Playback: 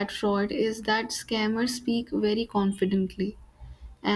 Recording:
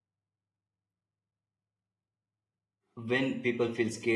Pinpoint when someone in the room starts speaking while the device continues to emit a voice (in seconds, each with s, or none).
3.0 s